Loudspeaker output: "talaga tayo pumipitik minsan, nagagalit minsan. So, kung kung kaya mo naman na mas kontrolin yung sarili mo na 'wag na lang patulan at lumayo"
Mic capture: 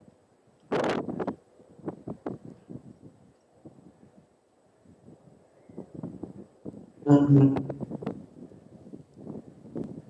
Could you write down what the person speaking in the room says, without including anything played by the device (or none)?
mm,